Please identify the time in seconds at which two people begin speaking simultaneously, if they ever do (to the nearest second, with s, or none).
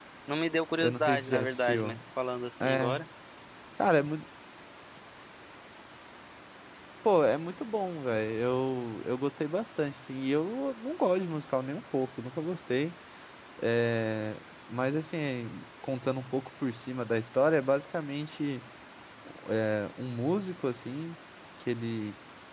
1 s